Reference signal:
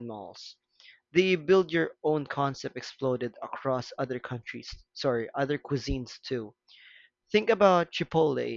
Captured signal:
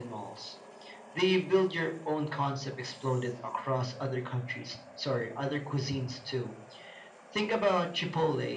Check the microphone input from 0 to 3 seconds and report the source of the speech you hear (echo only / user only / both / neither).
echo only